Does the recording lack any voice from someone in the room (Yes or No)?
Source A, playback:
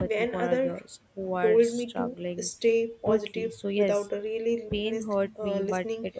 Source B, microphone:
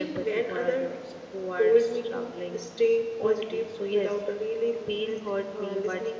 Yes